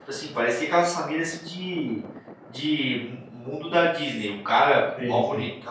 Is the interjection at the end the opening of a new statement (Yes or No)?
No